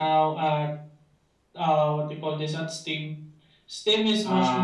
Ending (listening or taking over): listening